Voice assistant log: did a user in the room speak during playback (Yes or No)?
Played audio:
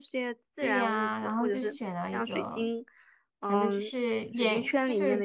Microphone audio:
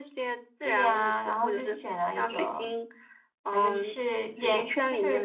No